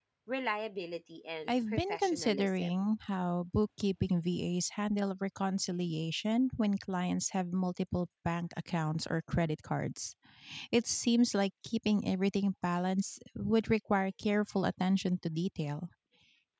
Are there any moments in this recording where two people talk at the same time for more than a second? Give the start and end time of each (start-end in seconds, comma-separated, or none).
1.5-2.7